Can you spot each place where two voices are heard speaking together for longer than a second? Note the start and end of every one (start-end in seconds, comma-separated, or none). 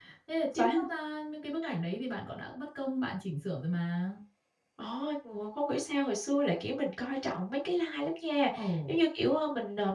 none